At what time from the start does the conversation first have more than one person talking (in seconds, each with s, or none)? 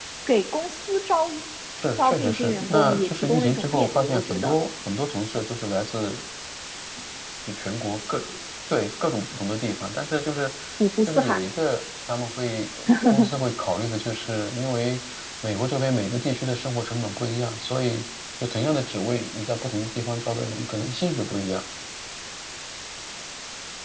2.0 s